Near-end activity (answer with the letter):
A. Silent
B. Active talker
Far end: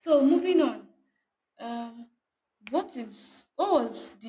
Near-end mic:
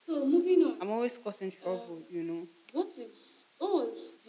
B